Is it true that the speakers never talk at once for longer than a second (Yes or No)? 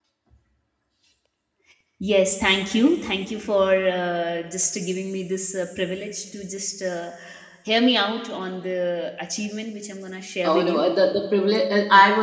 Yes